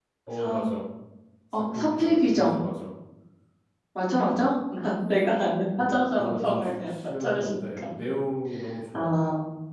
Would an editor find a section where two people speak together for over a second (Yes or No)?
Yes